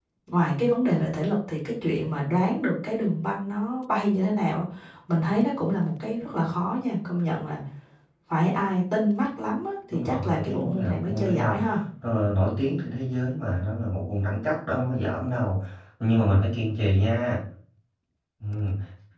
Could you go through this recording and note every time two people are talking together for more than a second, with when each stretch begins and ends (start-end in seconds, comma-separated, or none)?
9.9-11.6